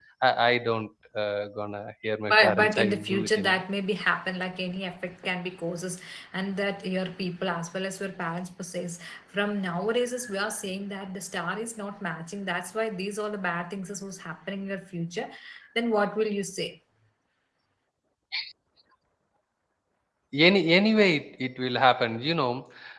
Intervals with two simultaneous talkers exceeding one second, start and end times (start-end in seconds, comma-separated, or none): 2.3-3.6